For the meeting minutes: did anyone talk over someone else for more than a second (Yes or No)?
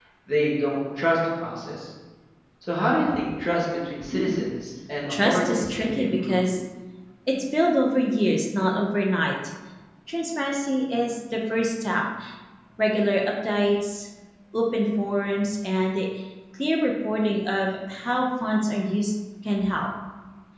Yes